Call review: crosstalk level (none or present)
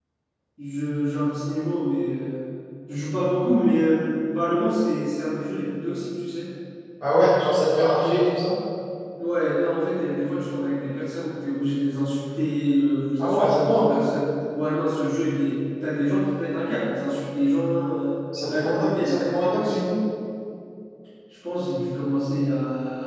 present